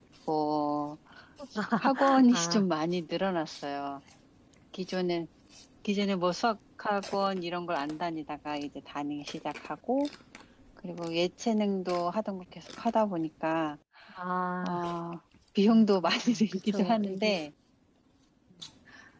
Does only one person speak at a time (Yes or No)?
No